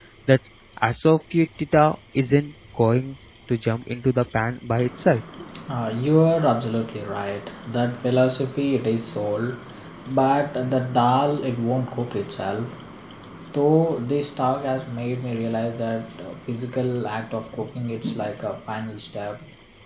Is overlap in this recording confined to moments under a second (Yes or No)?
Yes